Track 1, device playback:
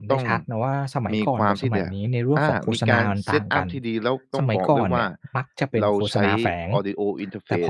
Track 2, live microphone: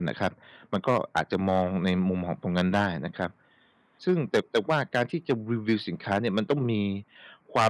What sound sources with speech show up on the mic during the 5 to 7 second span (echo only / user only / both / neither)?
user only